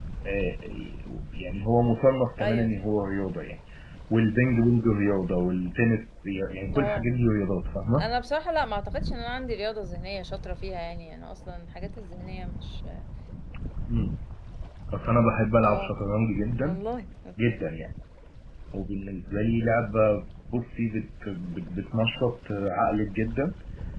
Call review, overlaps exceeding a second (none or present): none